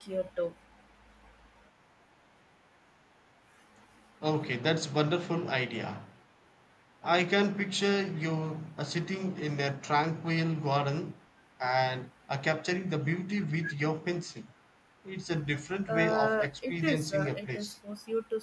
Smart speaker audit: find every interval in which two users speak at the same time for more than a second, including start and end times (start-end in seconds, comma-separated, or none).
15.9-17.7